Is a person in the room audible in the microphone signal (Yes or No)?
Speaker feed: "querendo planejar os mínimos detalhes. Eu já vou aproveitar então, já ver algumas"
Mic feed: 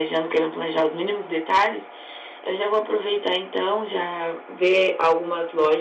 No